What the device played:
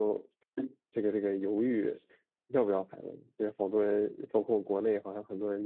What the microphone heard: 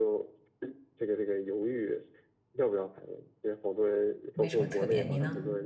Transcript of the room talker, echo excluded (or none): 没什么特别。你呢？